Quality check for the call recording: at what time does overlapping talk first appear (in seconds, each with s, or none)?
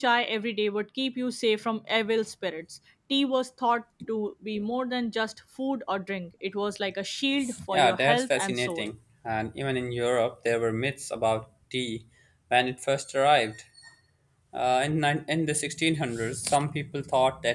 7.7 s